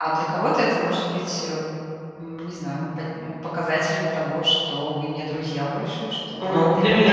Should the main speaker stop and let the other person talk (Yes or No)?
Yes